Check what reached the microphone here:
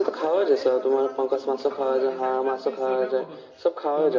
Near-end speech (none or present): present